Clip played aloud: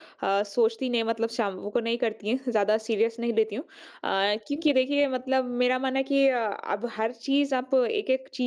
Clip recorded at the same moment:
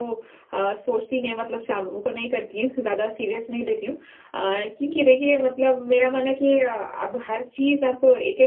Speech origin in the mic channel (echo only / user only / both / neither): echo only